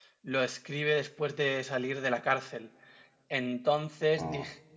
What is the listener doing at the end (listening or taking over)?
listening